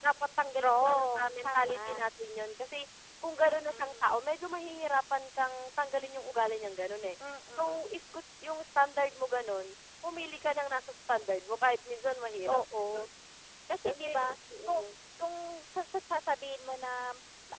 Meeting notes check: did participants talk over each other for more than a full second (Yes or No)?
Yes